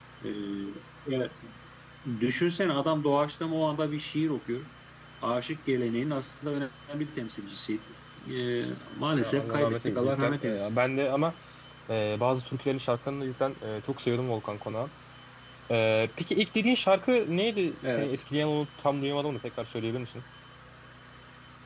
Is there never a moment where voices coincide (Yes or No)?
No